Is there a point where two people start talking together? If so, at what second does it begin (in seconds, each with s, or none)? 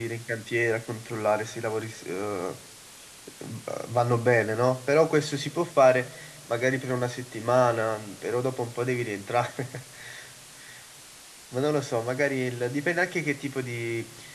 none